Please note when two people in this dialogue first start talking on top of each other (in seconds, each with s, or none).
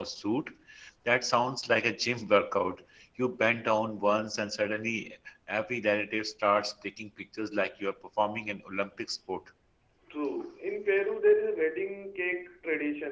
none